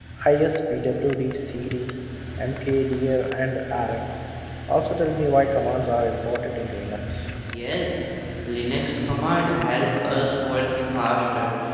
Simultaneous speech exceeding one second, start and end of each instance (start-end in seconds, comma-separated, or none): none